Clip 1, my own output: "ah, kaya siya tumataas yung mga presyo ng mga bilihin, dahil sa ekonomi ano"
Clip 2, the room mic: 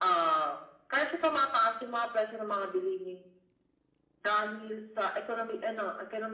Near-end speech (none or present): none